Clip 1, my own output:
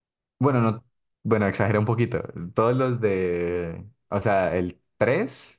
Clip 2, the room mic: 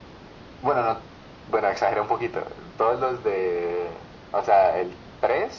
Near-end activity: none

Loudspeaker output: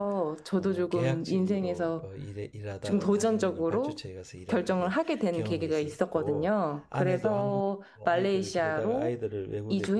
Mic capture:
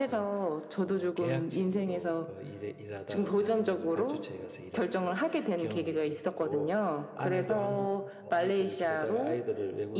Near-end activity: none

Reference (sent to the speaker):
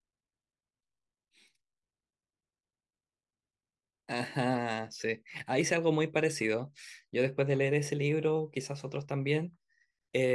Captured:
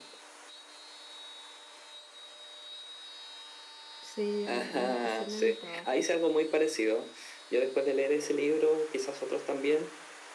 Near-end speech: present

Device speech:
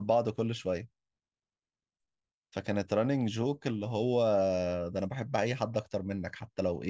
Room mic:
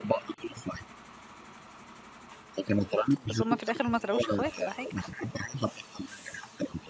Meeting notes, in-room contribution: present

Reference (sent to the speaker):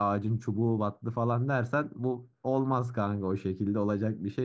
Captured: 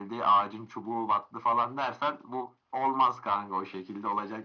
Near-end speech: none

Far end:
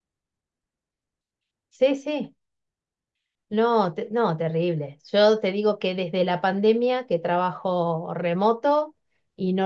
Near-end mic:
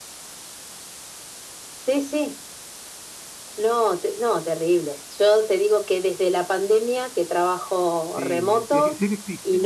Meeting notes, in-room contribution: present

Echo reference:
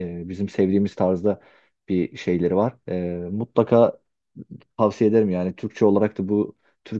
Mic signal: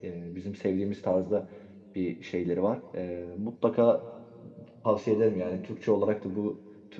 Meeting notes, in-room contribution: none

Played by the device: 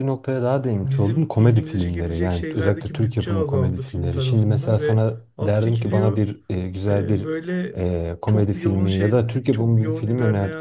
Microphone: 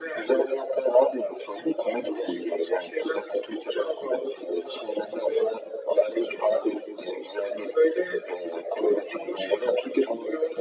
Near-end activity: none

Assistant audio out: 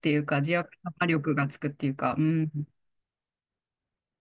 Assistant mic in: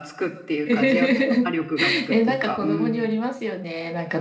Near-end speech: present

